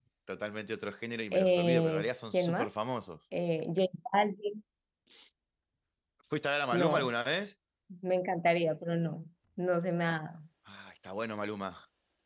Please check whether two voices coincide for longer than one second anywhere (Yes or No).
Yes